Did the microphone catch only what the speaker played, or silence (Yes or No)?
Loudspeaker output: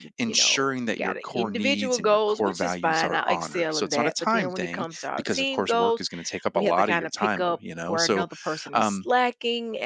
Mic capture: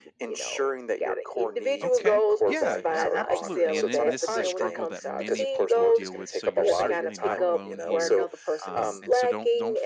No